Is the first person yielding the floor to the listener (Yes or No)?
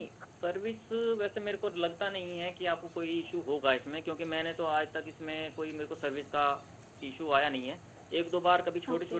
No